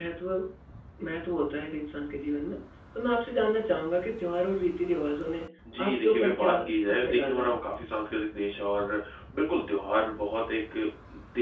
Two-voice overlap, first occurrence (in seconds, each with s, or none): 5.6 s